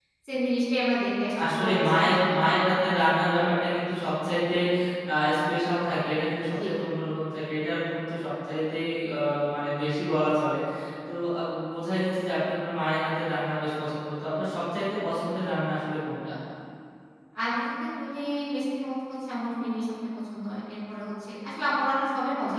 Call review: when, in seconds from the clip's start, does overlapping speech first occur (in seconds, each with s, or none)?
1.4 s